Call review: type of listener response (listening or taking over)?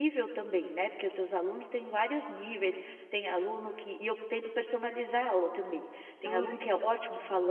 listening